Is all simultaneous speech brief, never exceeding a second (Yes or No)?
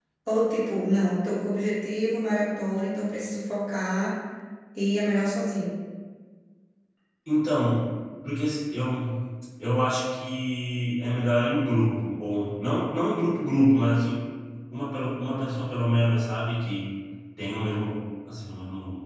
Yes